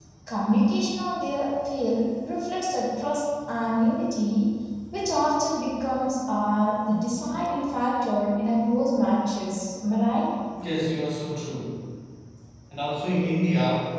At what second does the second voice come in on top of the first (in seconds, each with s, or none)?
none